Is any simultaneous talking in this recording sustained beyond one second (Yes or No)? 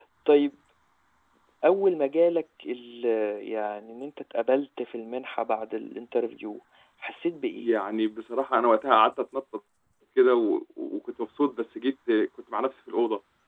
No